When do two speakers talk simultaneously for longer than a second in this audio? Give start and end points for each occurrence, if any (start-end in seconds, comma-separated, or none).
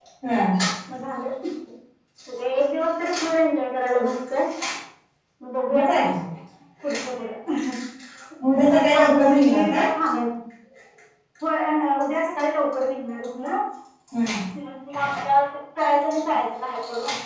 8.6-9.8